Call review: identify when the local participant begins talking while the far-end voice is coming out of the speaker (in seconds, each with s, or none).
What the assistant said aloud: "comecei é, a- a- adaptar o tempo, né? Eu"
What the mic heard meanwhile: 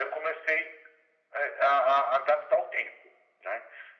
none